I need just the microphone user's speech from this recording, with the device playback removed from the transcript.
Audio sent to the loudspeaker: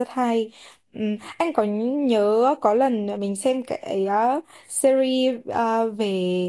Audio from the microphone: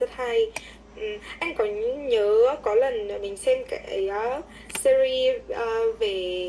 none

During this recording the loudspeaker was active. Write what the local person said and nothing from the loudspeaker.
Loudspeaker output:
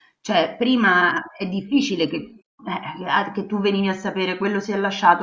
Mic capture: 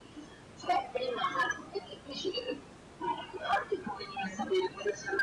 none

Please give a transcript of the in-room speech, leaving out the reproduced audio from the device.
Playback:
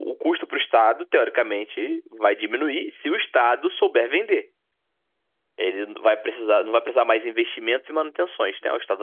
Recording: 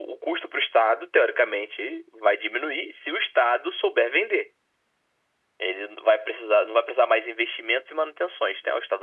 none

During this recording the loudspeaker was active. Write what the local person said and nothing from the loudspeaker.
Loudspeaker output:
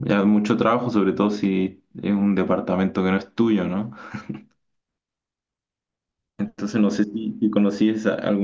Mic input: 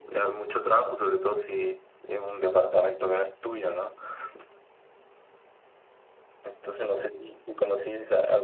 none

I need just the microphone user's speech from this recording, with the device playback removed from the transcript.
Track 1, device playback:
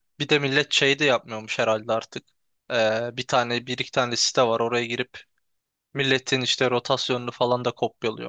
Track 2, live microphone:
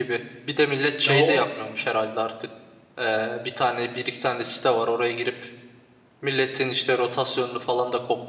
Ya o

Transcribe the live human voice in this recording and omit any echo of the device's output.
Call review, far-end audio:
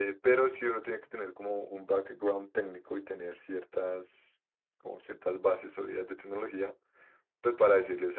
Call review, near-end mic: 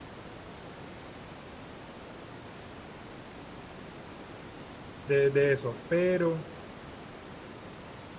de, de eso, pero

